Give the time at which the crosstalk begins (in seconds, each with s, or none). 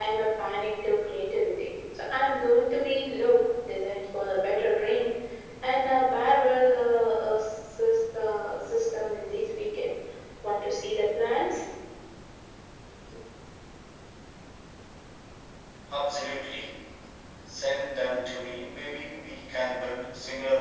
none